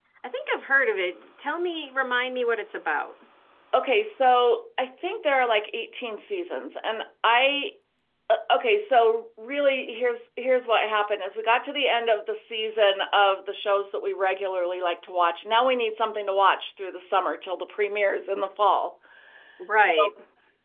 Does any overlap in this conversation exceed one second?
No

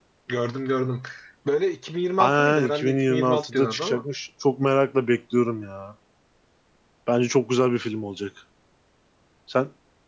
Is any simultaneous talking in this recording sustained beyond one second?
Yes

